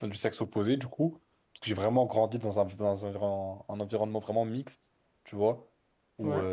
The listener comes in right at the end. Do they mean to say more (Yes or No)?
No